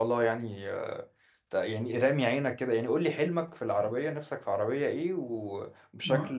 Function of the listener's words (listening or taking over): taking over